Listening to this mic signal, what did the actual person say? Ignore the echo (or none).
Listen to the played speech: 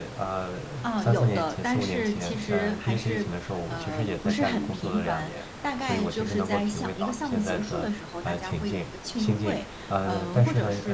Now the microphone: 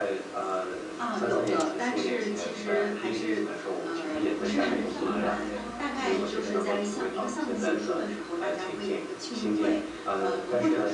就是相当于是说，即使